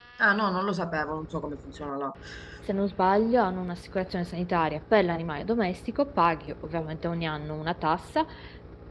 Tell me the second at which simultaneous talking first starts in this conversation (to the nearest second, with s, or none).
none